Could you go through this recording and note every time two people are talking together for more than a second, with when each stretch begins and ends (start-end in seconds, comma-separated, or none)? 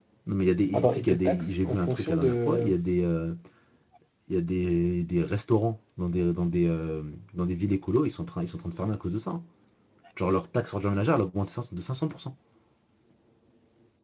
0.7-2.7